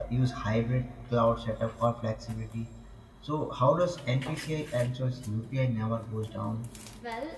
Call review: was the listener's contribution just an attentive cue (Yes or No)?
No